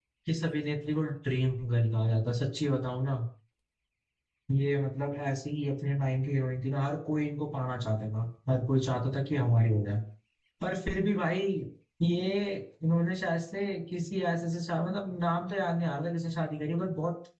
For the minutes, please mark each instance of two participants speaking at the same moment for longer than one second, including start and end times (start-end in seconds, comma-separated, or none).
none